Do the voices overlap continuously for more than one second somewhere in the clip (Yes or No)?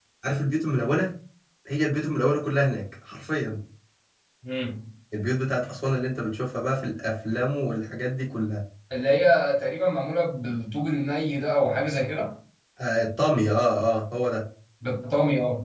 No